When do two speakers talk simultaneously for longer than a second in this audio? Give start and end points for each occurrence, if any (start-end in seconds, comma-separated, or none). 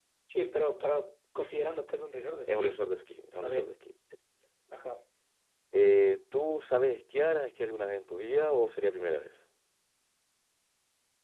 none